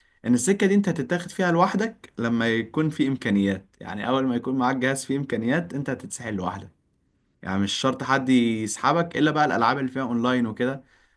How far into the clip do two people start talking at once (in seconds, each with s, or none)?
none